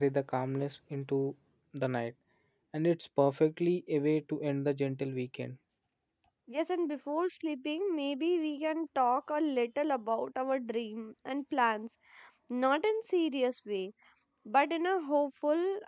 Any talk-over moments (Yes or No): No